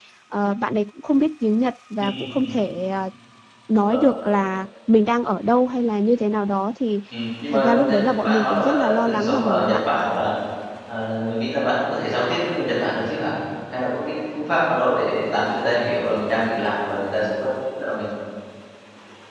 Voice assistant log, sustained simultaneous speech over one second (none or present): present